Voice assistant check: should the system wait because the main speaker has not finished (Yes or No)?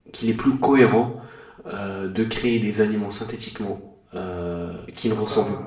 Yes